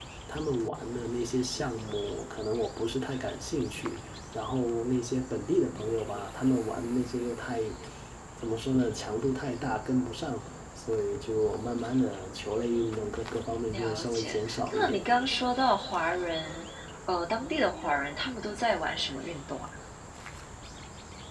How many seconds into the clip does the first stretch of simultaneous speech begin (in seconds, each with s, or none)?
13.7 s